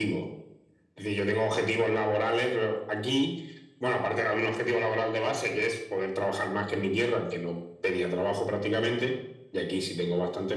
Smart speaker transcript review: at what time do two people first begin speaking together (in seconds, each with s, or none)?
none